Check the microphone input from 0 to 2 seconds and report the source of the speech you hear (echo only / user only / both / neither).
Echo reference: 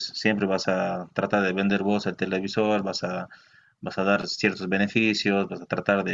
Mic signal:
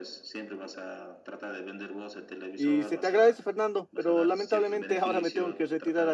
echo only